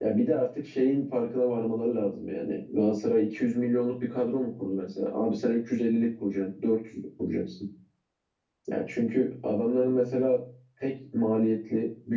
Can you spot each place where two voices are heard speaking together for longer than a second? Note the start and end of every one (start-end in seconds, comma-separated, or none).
none